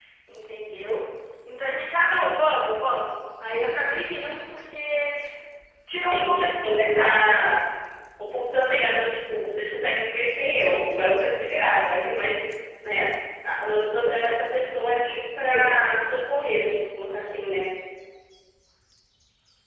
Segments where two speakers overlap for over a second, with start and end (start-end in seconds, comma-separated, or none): 6.1-7.4